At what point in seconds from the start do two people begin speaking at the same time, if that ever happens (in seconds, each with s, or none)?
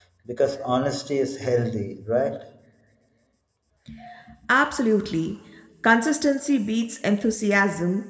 none